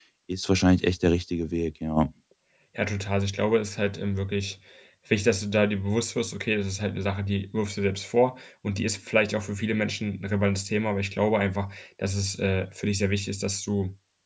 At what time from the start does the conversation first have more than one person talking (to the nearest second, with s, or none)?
none